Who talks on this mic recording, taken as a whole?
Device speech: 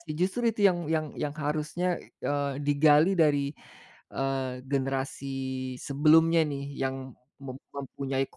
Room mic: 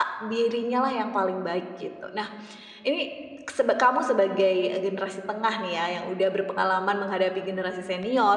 user only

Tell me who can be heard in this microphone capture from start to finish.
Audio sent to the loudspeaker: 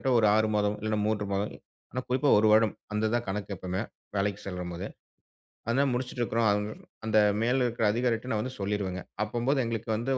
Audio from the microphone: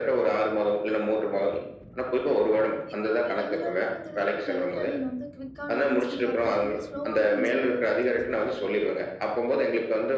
both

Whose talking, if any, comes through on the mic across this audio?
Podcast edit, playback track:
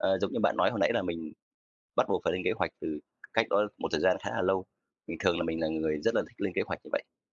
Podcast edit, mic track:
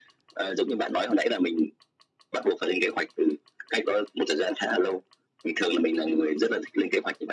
echo only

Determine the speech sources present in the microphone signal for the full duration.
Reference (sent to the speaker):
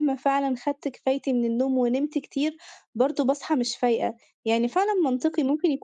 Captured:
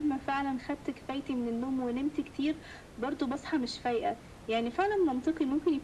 echo only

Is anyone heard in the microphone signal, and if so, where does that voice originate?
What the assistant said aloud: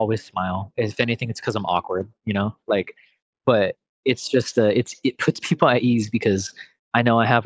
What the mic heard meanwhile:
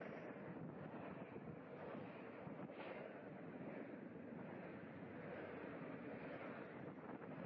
neither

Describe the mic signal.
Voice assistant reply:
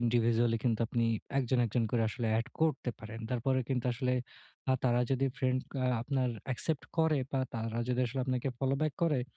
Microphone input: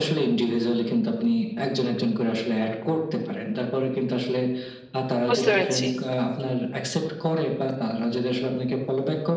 both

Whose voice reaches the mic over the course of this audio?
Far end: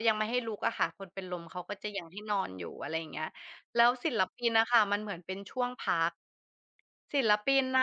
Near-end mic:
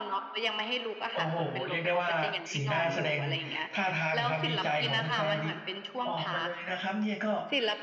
both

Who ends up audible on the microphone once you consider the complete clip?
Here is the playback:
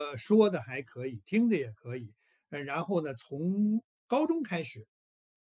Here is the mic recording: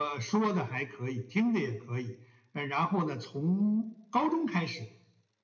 echo only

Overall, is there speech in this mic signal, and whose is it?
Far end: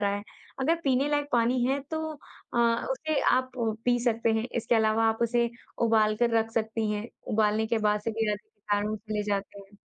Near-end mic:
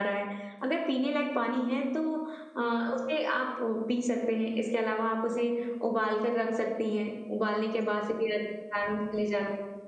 echo only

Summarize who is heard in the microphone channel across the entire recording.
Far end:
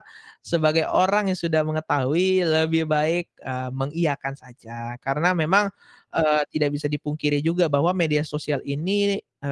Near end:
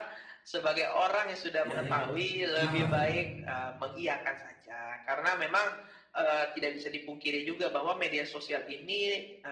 both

